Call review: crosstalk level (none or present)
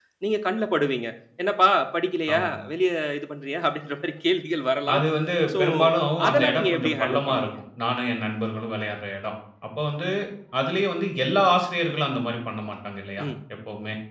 present